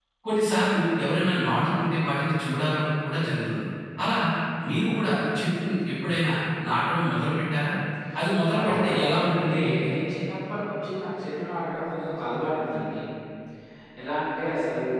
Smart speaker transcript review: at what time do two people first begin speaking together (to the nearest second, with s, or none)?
9 s